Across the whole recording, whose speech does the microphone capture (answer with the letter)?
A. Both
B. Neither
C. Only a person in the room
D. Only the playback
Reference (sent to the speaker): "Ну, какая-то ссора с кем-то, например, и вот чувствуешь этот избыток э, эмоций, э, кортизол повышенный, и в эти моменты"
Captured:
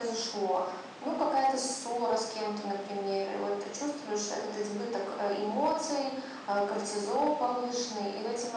D